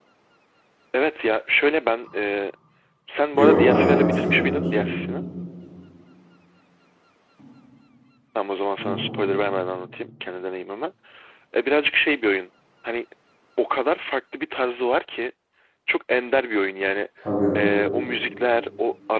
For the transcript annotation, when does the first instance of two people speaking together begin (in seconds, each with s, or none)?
3.3 s